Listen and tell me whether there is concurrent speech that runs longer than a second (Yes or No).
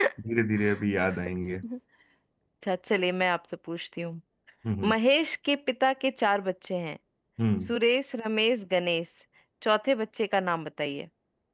No